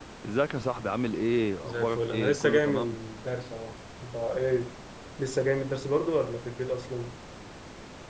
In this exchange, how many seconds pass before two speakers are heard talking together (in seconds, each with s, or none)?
1.6 s